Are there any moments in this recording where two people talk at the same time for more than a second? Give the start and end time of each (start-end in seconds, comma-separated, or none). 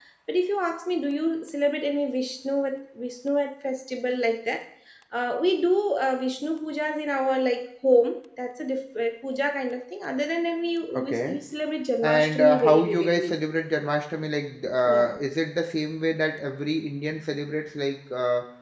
12.0-13.3